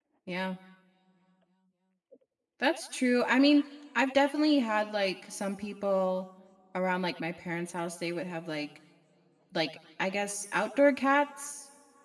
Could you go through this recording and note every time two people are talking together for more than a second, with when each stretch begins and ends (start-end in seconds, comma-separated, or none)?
none